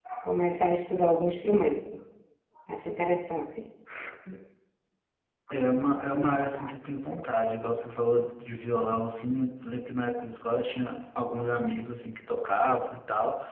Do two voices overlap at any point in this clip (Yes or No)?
No